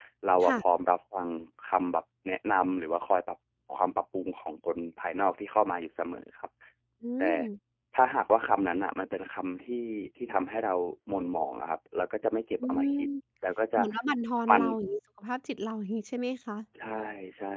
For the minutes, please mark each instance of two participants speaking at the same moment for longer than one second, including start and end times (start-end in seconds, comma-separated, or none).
none